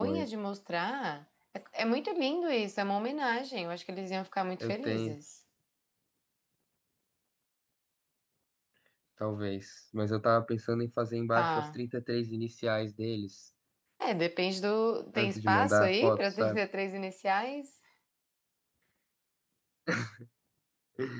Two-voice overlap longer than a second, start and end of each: 15.2-16.6

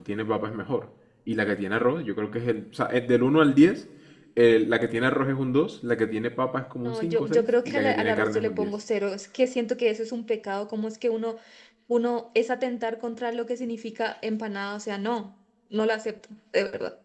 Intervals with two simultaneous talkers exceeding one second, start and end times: 6.8-8.7

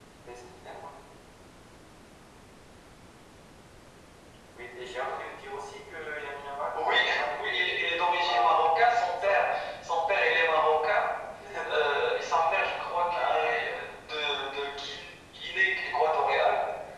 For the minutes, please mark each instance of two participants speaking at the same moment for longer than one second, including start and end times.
6.7-8.7

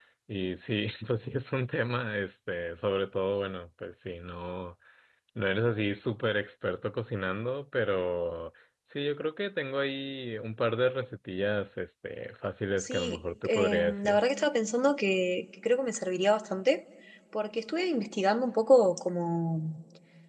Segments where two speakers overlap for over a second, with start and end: 12.8-14.2

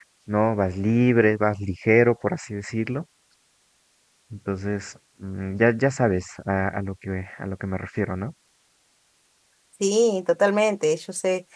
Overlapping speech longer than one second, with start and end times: none

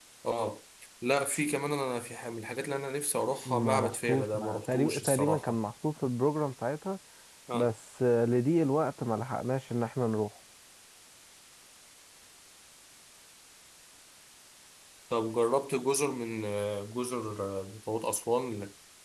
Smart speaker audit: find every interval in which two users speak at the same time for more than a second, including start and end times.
3.5-5.5

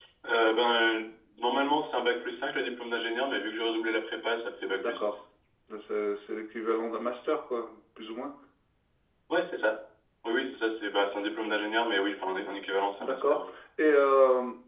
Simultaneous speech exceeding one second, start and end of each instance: none

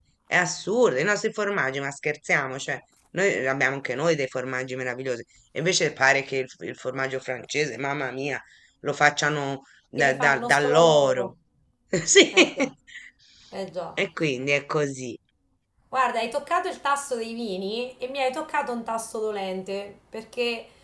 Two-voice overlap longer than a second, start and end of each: 10.0-11.3

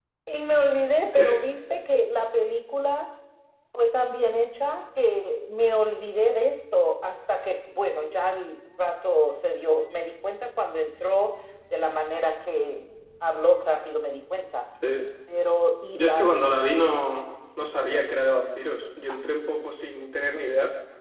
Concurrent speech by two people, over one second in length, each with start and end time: none

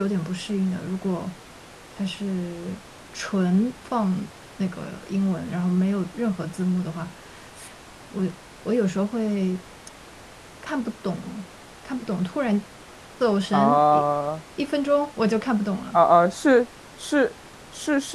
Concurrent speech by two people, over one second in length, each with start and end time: none

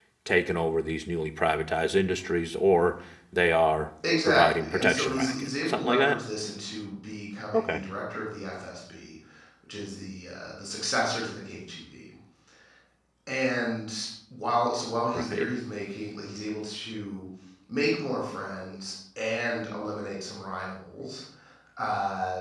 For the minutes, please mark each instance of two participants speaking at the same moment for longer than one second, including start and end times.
4.2-6.2

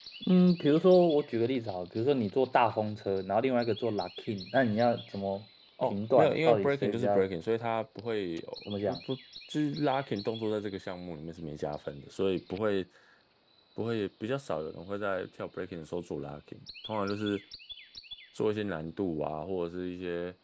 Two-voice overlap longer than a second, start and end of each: 5.8-7.3

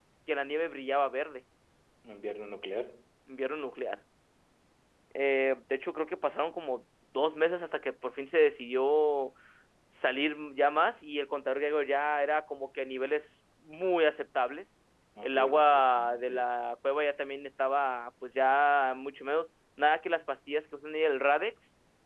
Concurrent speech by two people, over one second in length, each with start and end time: 15.2-16.4

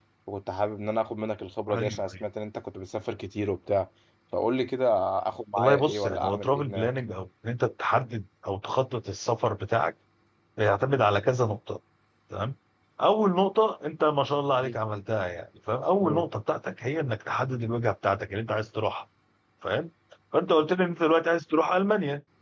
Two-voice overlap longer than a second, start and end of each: 5.6-6.9

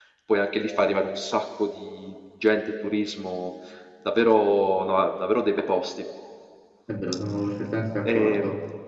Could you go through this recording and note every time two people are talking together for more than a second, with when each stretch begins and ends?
none

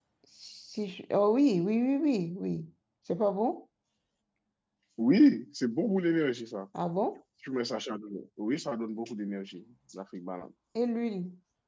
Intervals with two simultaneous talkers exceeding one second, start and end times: none

